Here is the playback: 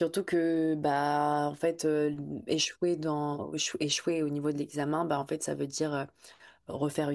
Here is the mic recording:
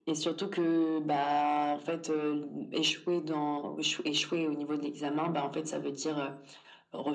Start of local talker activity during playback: none

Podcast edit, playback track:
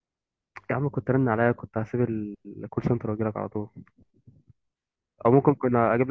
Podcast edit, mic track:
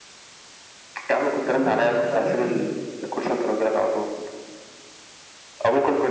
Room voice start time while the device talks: 1.5 s

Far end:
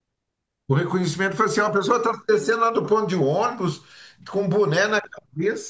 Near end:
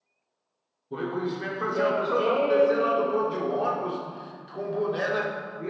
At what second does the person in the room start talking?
1.7 s

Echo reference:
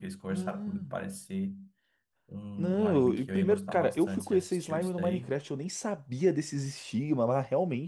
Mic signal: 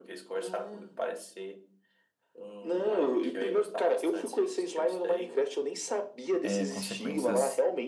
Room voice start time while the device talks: 6.4 s

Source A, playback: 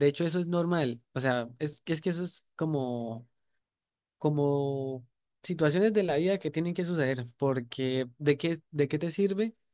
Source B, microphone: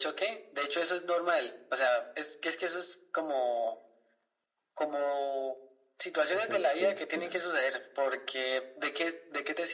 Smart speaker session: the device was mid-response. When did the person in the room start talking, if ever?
6.3 s

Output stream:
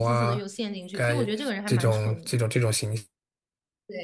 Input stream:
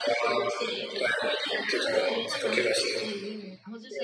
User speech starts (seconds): 1.9 s

